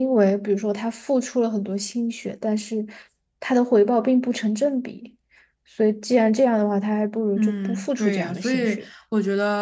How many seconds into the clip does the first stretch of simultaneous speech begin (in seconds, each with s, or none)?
7.4 s